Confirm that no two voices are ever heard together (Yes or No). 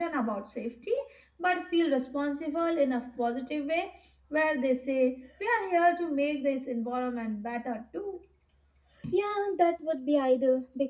Yes